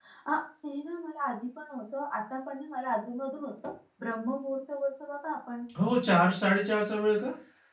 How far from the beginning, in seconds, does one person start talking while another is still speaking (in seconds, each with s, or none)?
none